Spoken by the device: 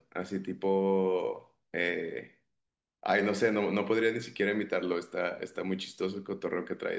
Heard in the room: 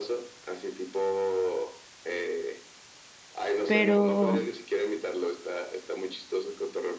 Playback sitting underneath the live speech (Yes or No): Yes